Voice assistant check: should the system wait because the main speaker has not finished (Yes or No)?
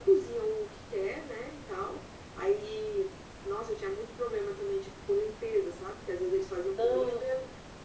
Yes